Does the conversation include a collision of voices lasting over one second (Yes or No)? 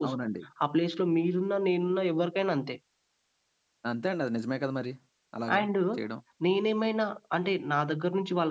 No